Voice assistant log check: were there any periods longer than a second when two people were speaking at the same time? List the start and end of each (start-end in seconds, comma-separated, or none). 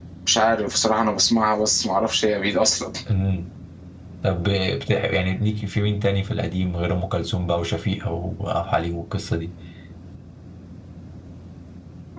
none